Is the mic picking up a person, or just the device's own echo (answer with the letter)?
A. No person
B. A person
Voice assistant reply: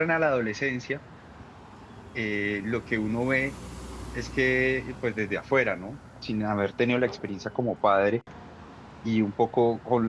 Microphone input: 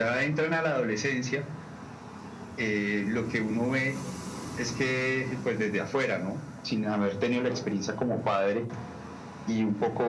A